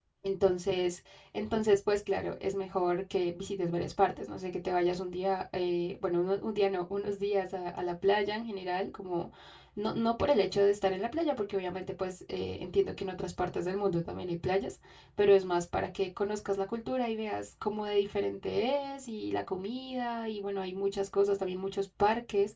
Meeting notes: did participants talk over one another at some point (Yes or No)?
No